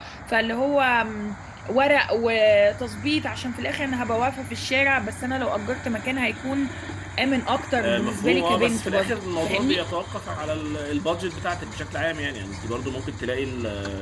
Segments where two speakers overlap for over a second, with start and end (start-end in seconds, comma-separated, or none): 7.8-9.8